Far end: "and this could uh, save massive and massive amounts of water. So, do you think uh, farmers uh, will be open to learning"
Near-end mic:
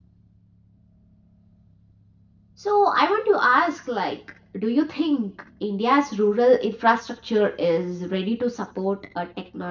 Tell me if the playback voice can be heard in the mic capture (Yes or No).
No